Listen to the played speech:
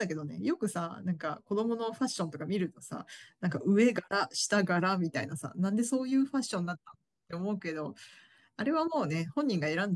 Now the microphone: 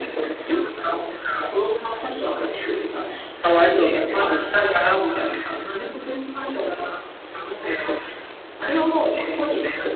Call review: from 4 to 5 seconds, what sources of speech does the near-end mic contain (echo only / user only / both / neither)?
both